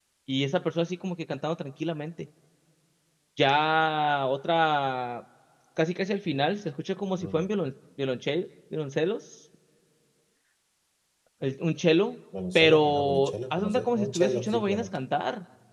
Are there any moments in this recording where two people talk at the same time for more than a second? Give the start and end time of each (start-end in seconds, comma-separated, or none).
12.6-15.0